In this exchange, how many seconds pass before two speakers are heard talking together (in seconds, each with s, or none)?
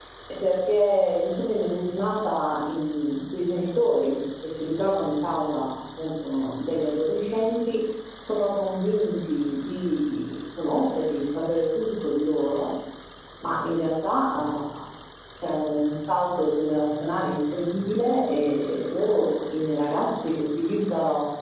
none